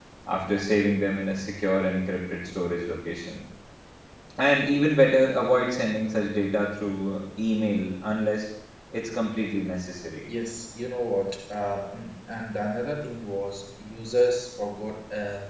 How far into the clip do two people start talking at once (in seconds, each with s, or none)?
none